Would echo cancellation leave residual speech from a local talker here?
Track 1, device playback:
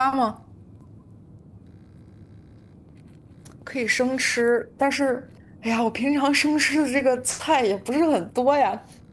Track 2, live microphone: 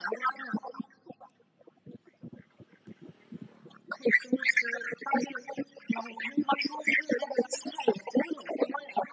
No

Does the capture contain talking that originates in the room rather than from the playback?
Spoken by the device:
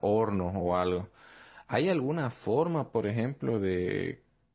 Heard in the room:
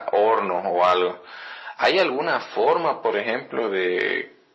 No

